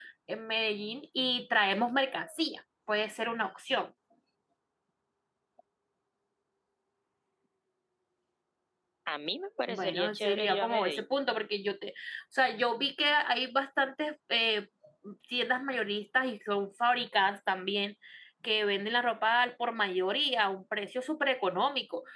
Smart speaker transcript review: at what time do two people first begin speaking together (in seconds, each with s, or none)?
9.7 s